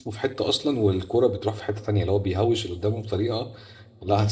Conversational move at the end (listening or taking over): listening